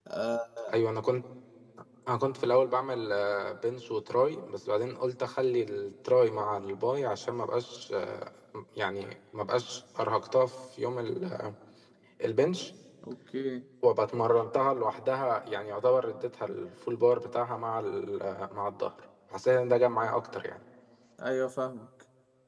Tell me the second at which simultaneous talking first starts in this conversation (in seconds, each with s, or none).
none